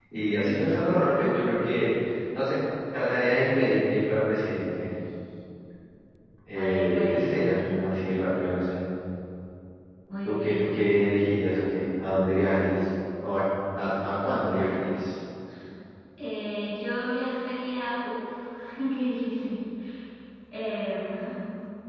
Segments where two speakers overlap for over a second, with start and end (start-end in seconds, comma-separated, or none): 6.5-7.9